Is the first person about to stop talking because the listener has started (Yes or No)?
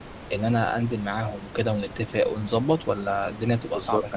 Yes